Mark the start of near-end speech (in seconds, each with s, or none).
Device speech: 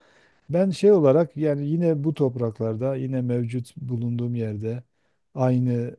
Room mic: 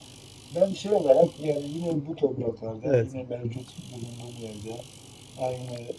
2.8 s